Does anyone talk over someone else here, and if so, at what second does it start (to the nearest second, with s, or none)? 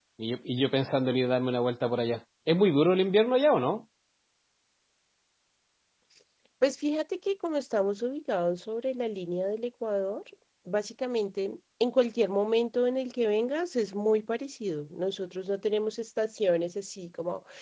none